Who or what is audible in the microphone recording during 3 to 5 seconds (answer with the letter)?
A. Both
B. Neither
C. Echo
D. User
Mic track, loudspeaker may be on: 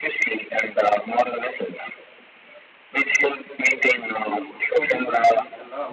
A